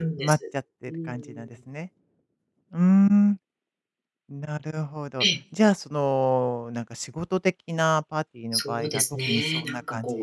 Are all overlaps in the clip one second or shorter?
No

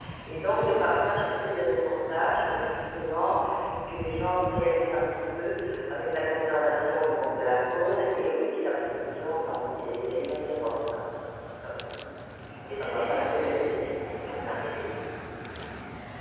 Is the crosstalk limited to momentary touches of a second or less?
No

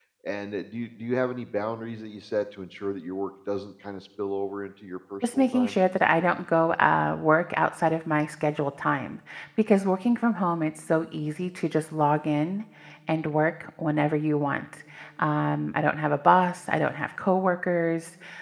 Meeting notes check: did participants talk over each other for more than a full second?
No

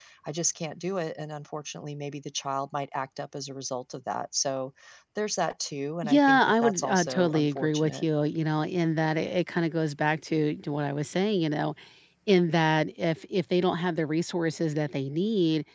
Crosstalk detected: Yes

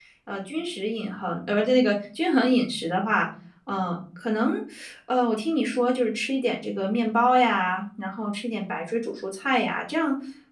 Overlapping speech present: No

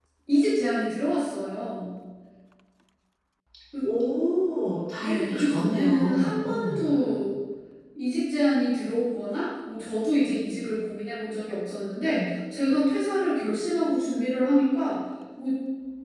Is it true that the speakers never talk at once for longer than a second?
No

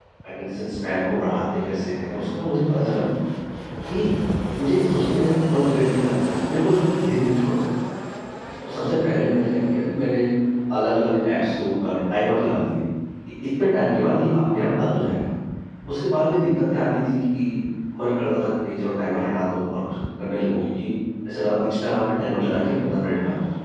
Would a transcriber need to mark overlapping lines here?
No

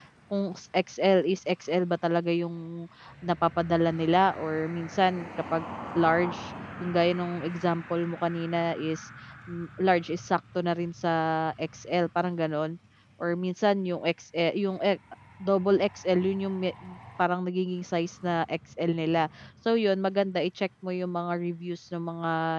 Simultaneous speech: No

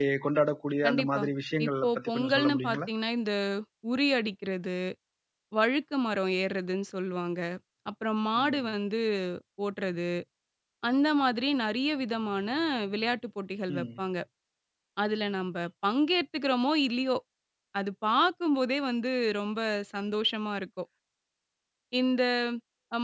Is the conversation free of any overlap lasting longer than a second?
No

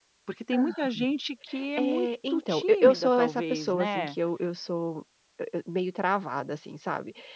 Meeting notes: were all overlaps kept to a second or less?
No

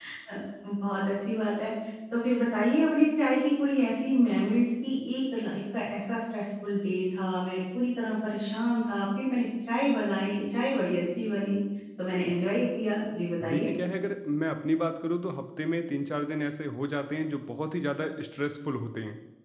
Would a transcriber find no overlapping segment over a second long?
Yes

